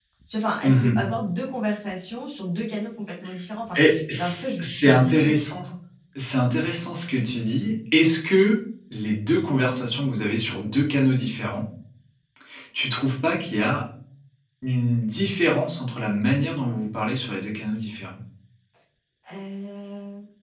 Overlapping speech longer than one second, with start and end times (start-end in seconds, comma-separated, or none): 3.8-5.3